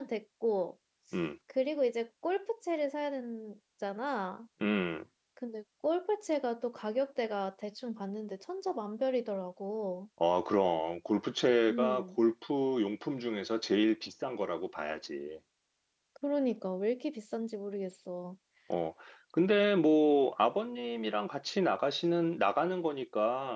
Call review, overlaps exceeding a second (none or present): none